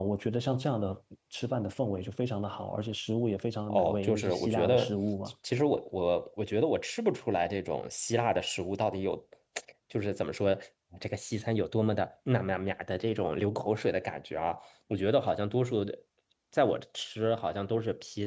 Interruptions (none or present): present